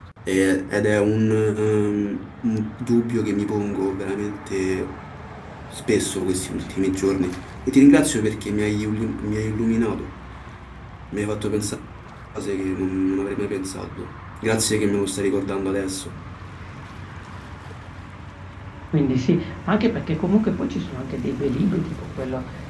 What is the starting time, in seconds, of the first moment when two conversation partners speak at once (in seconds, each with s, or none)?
none